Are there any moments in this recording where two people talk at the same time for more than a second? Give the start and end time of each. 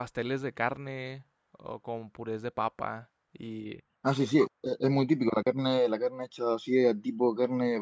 none

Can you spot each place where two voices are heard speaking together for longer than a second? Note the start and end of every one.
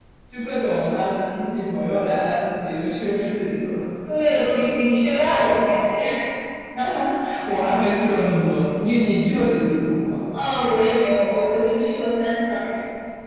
none

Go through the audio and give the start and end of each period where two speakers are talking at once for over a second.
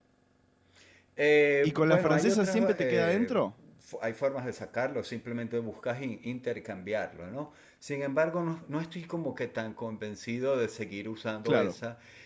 1.6-3.3

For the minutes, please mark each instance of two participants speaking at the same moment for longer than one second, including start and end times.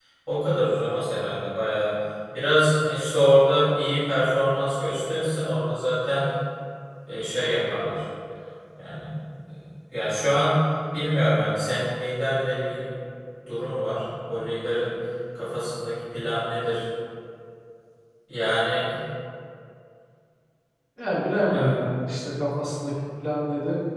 none

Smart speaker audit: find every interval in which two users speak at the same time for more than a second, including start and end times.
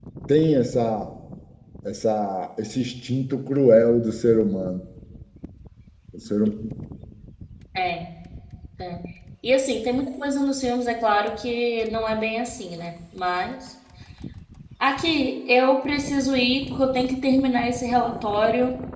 none

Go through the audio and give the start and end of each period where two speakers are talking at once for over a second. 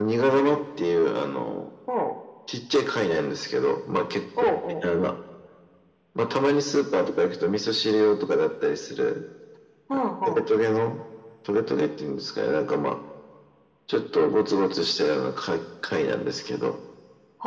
none

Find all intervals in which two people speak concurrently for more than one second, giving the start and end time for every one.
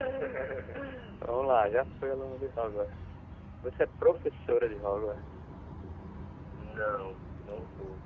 none

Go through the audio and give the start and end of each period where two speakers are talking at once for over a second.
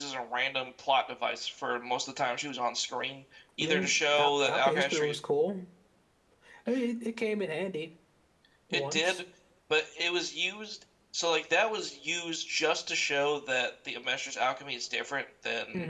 3.6-5.2

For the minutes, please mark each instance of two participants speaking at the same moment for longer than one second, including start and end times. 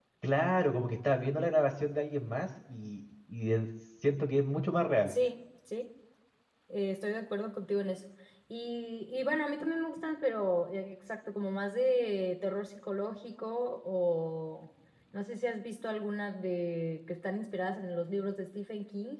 none

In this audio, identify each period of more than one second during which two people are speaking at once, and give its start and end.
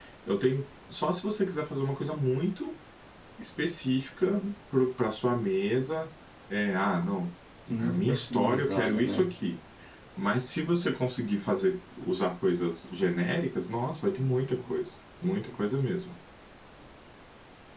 7.8-9.3

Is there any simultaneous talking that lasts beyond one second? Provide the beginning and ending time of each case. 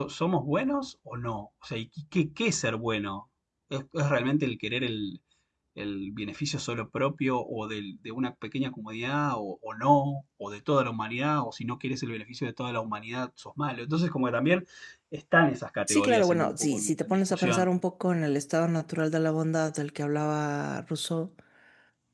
15.9-17.7

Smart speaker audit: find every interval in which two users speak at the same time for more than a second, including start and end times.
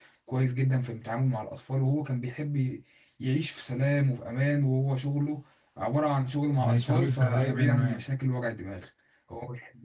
6.6-8.0

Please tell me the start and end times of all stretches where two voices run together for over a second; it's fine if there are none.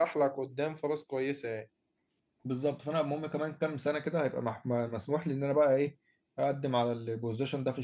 none

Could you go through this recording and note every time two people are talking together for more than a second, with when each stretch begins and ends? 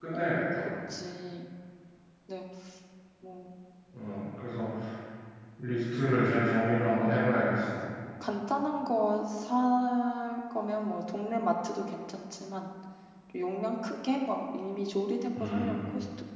none

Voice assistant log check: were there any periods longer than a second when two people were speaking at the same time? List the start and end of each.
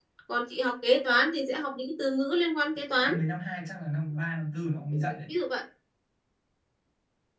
none

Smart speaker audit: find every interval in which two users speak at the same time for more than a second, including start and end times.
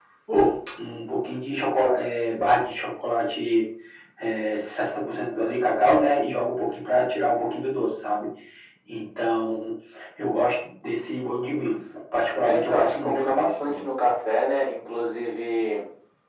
12.4-13.8

